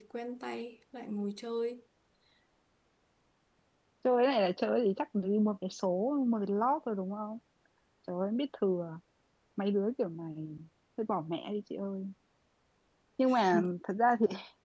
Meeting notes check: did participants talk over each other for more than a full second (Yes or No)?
No